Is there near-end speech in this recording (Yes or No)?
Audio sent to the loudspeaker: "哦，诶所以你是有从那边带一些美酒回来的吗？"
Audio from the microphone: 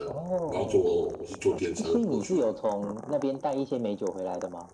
Yes